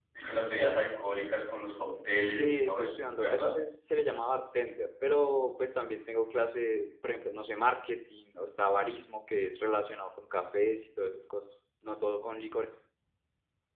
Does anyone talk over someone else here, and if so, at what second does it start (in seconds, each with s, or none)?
2.3 s